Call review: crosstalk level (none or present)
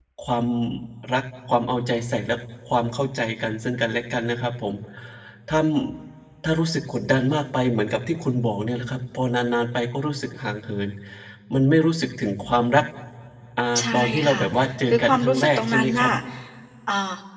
present